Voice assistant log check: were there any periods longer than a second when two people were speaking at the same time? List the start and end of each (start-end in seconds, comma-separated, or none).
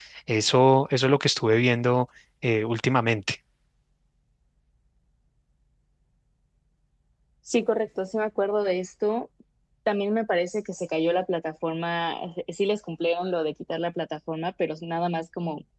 none